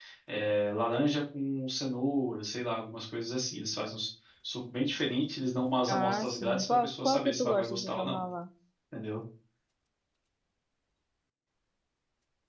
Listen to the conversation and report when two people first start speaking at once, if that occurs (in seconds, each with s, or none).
5.9 s